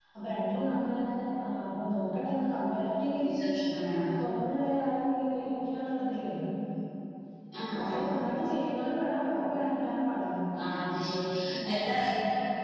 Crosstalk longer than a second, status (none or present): none